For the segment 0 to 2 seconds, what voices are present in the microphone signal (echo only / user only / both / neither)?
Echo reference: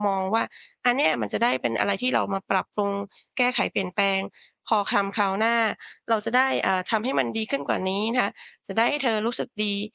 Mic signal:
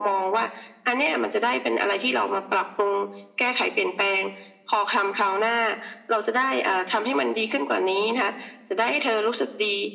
echo only